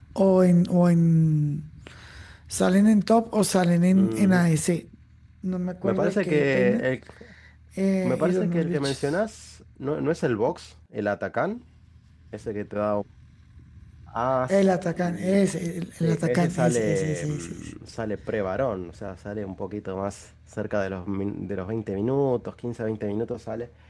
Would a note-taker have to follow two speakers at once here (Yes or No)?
Yes